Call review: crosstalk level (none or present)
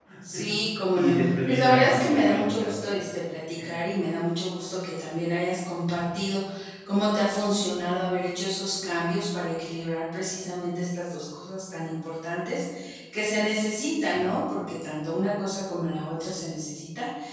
present